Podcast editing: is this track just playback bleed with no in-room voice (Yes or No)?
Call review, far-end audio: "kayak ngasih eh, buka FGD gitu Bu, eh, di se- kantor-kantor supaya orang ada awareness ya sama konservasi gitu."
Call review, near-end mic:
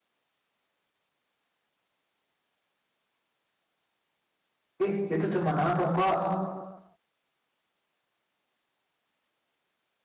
No